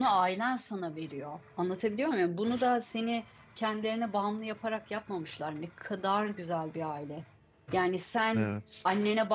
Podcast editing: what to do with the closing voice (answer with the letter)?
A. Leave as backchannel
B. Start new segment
A